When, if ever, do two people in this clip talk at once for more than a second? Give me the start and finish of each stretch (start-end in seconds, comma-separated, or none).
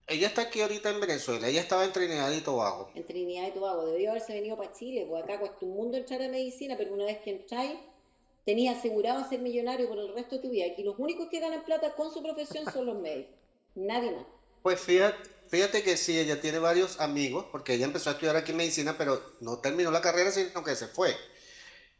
none